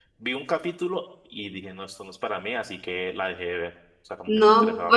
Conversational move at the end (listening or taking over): taking over